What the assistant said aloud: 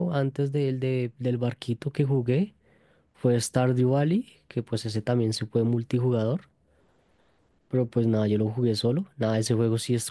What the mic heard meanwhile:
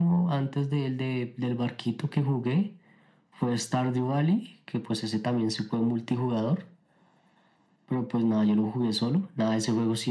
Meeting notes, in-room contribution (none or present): none